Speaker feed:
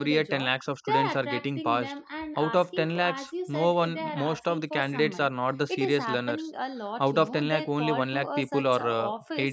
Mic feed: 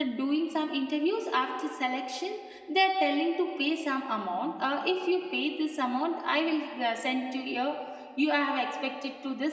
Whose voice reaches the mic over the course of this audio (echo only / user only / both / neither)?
user only